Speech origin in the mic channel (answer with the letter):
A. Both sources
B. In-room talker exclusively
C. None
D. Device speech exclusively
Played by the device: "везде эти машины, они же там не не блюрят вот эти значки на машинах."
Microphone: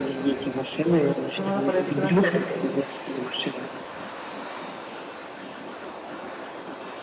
A